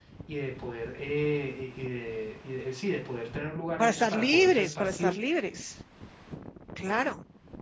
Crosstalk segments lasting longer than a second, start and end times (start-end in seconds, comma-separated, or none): 3.8-5.1